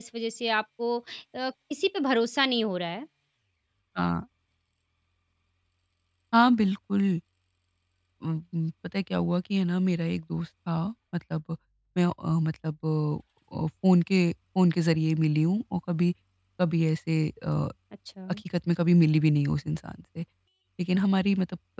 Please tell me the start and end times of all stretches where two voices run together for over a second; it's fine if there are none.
none

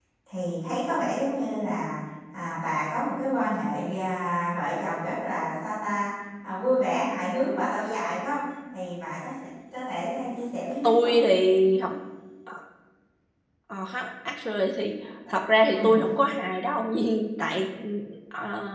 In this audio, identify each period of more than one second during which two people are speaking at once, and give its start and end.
none

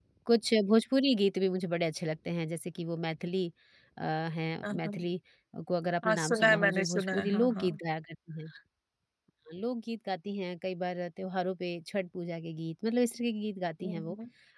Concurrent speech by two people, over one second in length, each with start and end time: 6.0-7.8

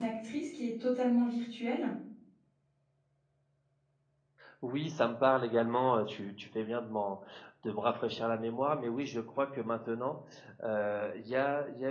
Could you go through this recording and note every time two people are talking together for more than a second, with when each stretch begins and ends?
none

